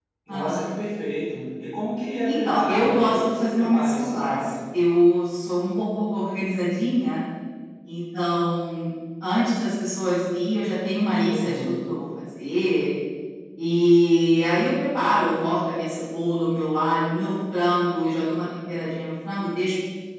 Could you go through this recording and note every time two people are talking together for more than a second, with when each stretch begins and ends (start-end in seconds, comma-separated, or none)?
2.2-4.4